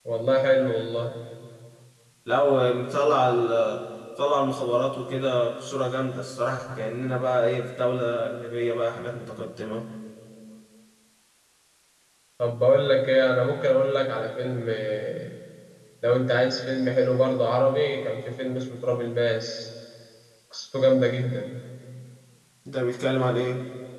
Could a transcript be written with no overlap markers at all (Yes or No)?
Yes